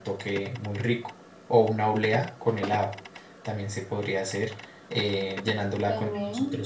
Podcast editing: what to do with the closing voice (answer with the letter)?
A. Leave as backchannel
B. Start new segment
A